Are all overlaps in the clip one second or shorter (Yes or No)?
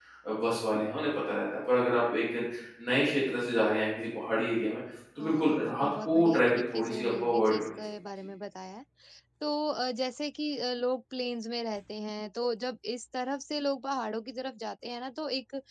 No